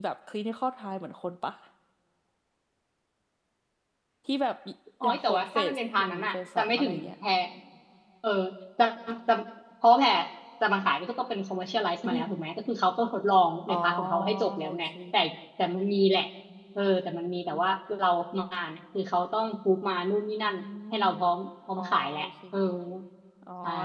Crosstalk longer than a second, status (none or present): present